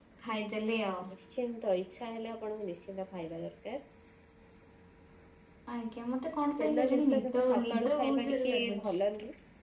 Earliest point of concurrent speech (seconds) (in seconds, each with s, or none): 6.6 s